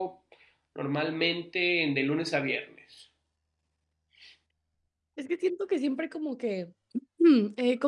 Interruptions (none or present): none